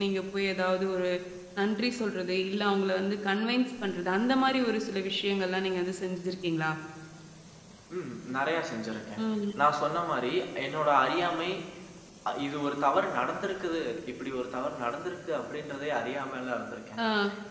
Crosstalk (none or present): none